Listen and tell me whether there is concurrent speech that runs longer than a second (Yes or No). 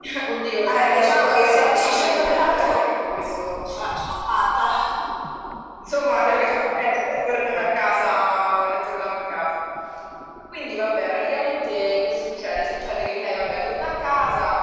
Yes